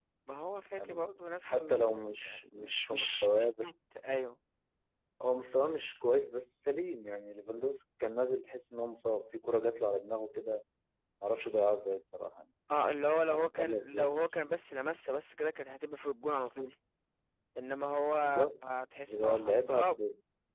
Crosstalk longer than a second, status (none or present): present